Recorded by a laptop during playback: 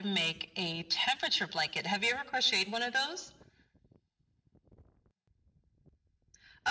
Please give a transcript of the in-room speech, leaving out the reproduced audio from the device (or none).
none